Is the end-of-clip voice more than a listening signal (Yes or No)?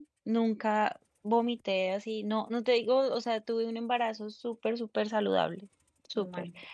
No